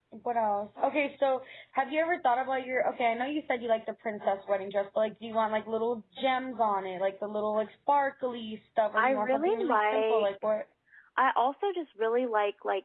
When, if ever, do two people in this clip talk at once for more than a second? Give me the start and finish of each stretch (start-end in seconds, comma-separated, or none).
9.0-10.3